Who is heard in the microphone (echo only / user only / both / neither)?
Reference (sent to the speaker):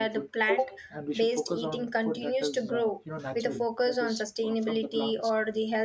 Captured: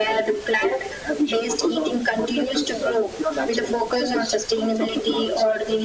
echo only